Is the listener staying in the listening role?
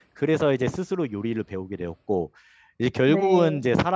Yes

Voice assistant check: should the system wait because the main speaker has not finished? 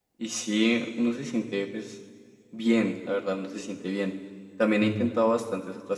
Yes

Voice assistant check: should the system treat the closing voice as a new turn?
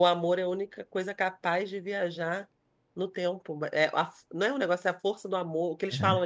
No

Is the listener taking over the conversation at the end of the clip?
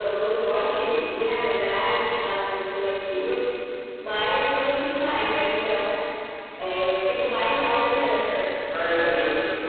Yes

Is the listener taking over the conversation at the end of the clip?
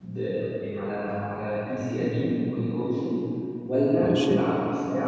No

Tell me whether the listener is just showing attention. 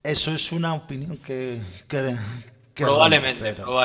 No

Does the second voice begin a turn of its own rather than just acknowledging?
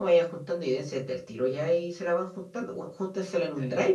No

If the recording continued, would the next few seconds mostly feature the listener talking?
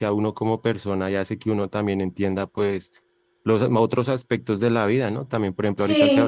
No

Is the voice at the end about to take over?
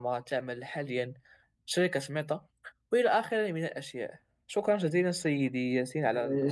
Yes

